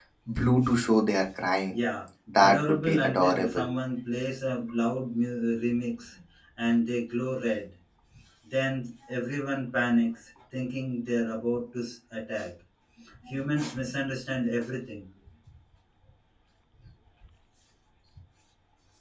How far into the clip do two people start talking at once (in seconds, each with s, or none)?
2.4 s